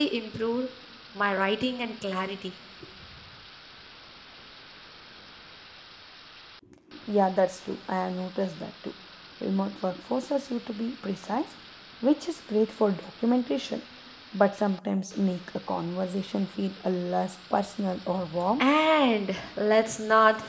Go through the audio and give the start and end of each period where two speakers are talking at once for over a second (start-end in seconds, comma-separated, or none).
none